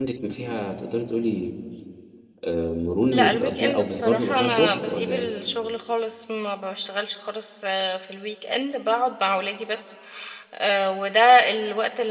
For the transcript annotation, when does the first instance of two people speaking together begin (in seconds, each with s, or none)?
3.1 s